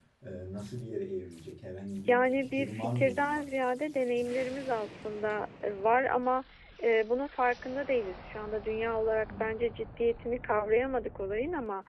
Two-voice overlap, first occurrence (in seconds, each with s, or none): 2.1 s